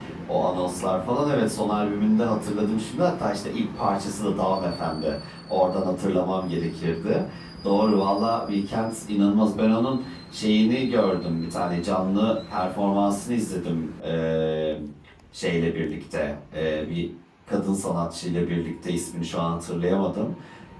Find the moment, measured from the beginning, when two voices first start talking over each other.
none

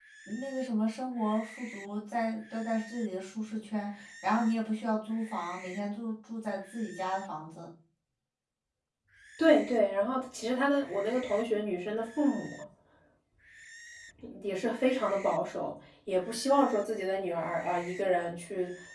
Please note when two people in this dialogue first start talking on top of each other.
none

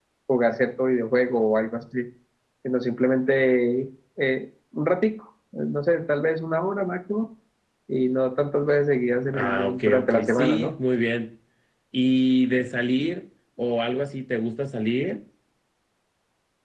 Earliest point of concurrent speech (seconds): 9.3 s

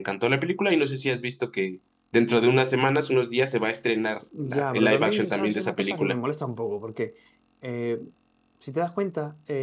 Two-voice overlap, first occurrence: 4.3 s

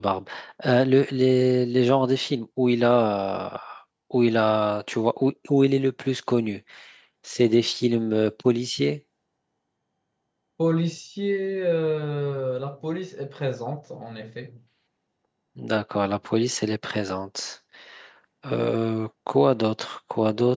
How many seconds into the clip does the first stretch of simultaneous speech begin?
none

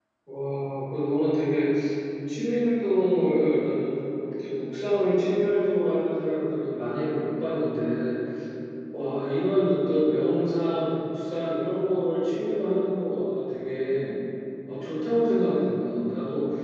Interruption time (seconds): none

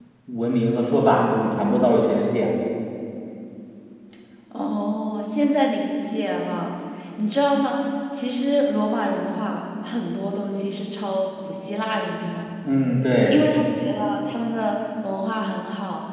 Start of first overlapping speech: none

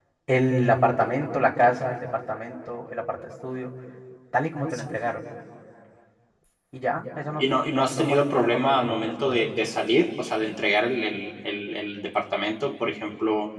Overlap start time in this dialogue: 7.4 s

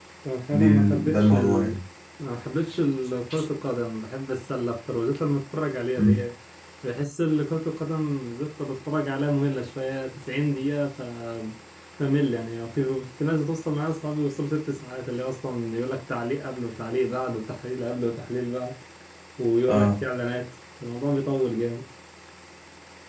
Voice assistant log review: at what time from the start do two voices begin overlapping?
0.5 s

